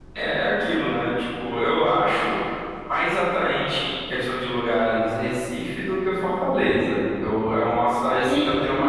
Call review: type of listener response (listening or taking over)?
listening